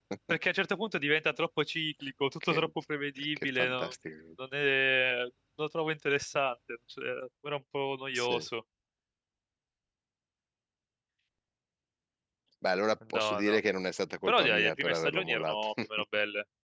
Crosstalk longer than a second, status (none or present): present